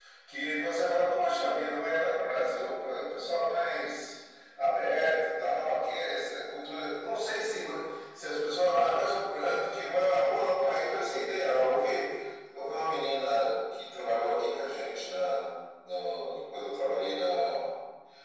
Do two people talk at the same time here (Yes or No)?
No